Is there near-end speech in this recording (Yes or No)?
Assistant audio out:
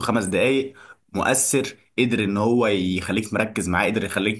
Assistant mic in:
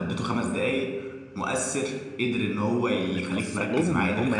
Yes